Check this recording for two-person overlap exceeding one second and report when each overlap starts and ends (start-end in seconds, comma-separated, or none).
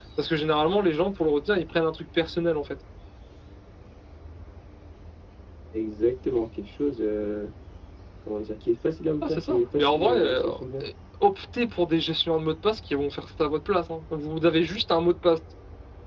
9.2-10.4